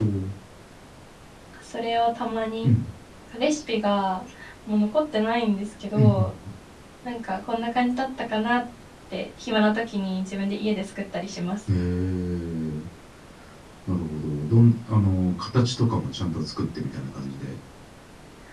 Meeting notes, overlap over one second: none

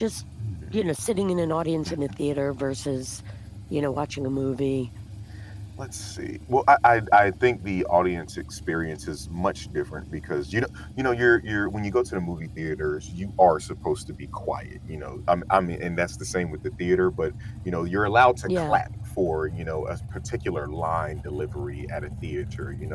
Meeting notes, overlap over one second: none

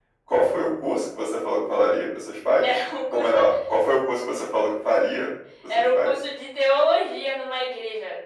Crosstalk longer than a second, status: none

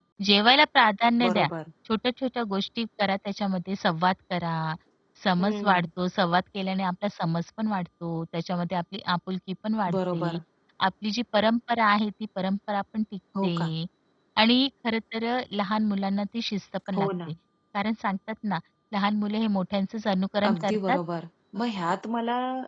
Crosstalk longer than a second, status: none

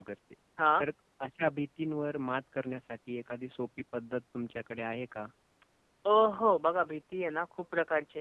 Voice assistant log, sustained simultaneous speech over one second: none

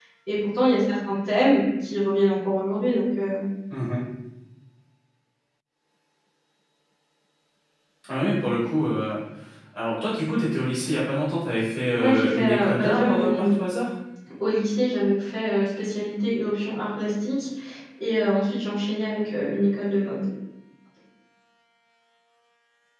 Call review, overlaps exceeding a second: present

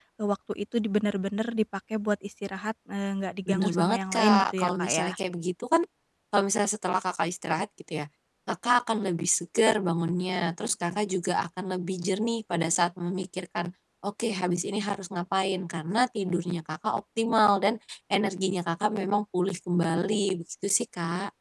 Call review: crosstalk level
present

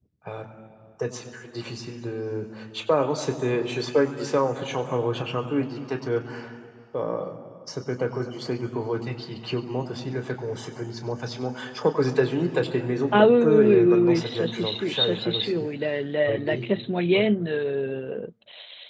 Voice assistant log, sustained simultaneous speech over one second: present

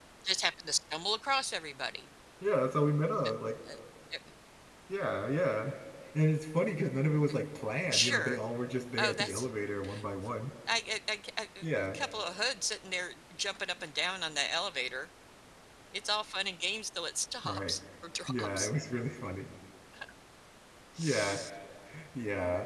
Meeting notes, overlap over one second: none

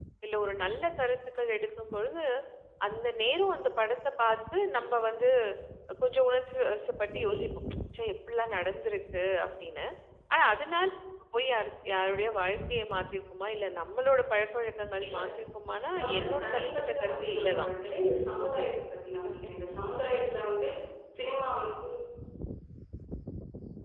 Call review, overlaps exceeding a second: present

